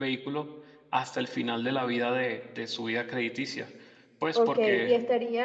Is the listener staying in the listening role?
No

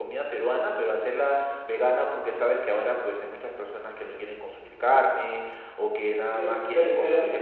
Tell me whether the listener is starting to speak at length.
Yes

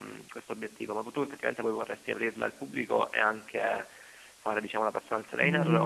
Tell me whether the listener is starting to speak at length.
Yes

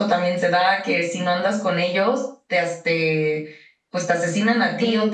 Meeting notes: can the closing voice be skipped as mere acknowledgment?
No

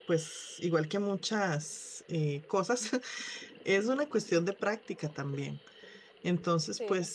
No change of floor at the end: Yes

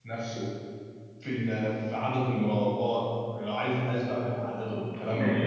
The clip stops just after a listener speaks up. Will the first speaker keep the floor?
No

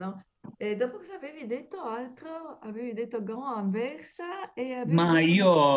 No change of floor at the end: No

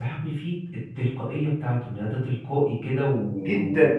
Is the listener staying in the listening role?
Yes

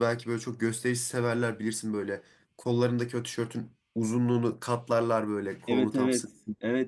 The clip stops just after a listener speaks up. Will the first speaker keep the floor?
No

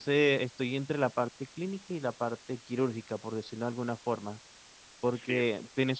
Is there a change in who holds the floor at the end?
No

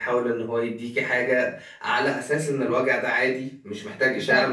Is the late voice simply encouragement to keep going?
No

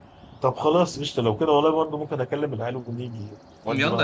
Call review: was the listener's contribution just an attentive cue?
No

